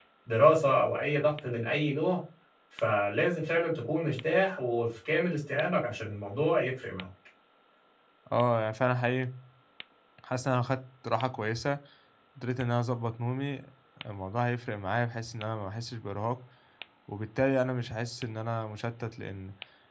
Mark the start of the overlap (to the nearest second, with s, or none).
none